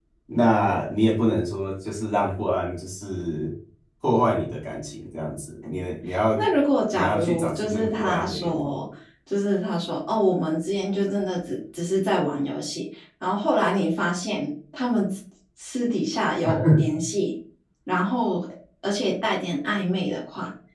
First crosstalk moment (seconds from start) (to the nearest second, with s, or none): 7 s